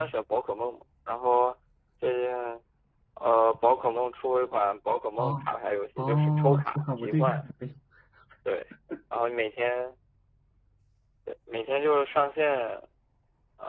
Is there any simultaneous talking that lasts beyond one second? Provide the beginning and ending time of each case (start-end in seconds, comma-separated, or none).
6.0-7.4